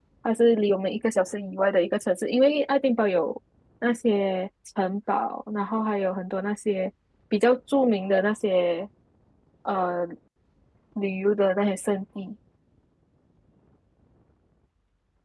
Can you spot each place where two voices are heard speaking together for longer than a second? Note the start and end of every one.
none

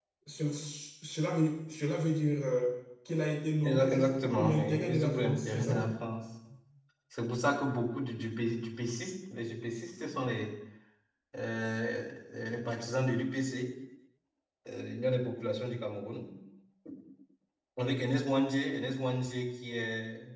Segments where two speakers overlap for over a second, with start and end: 3.6-5.9

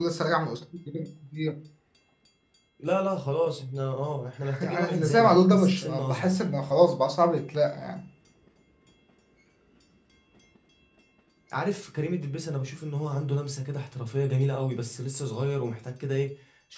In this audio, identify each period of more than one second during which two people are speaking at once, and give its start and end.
4.6-6.3

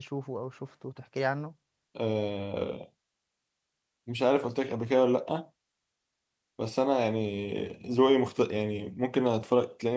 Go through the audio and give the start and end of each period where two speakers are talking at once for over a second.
none

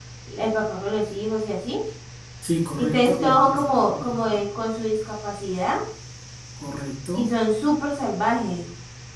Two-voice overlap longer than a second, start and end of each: 2.8-4.4

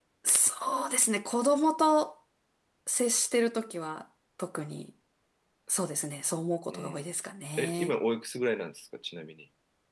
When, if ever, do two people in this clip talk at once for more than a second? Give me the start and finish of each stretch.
none

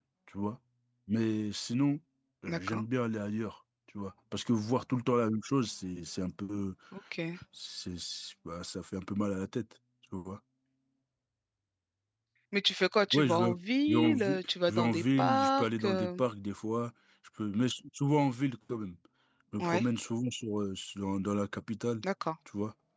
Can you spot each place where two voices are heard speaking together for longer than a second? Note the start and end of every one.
13.9-16.2

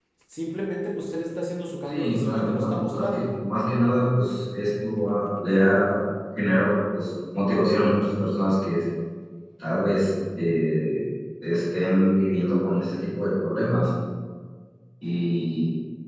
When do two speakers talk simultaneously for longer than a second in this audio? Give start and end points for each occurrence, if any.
1.9-3.4

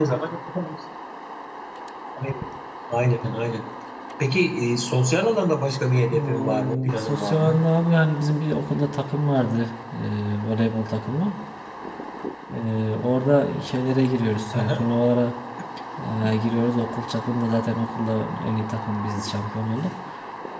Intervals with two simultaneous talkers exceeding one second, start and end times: 6.1-7.7

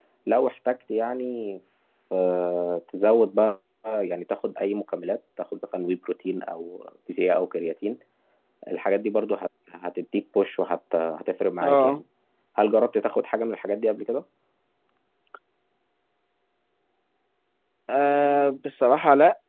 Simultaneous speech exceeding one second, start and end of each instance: none

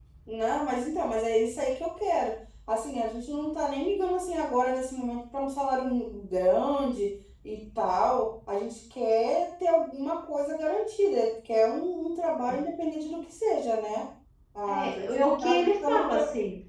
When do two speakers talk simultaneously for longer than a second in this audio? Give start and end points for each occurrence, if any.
14.7-16.0

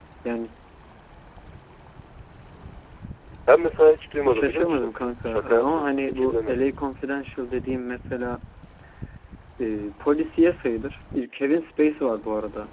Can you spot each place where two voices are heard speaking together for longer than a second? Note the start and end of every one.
4.3-6.7

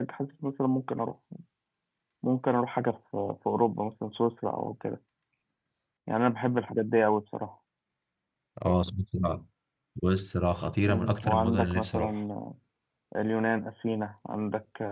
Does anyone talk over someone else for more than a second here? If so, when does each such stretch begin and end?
10.8-12.1

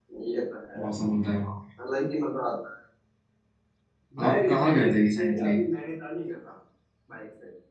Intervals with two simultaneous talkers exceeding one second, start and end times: 4.3-5.6

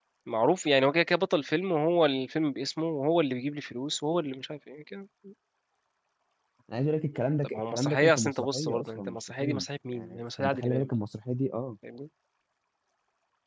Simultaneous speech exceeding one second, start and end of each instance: 7.4-10.9

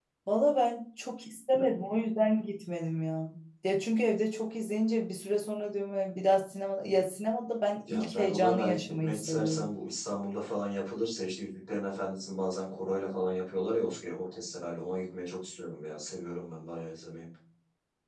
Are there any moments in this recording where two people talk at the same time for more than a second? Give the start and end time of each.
7.9-9.7

